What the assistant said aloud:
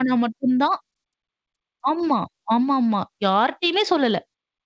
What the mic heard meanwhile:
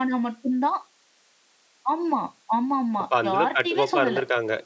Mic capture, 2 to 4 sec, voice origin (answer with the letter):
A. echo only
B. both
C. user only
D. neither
B